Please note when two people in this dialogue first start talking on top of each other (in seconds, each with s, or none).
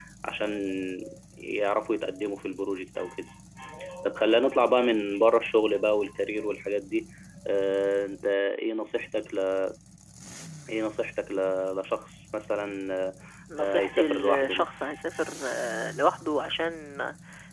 13.6 s